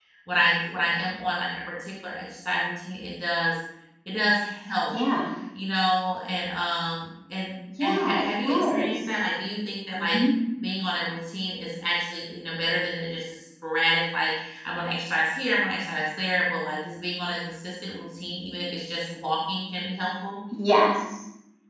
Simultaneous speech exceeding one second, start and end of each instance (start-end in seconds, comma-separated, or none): 7.8-9.2